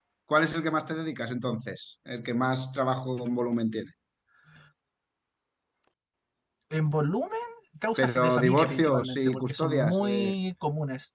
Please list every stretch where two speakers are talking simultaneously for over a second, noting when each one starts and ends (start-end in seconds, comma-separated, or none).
8.0-10.3